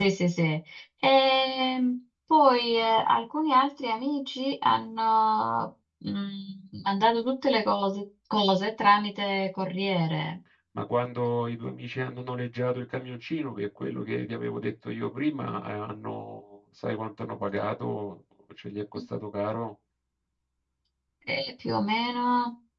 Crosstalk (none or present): none